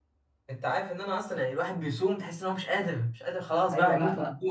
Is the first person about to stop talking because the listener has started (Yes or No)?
Yes